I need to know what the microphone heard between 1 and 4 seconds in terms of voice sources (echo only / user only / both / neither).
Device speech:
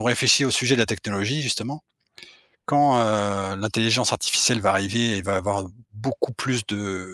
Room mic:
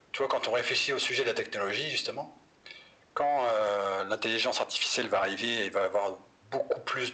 echo only